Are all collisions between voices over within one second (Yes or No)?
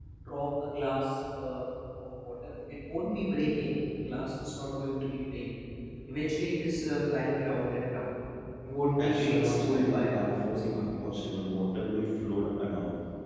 No